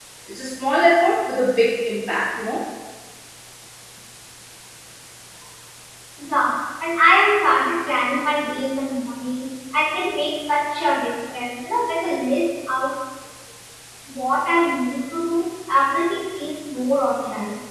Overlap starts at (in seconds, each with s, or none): none